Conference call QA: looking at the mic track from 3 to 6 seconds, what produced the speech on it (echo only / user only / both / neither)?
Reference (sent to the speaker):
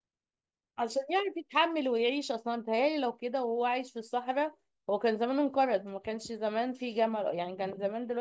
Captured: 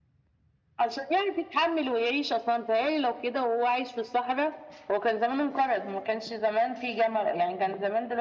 echo only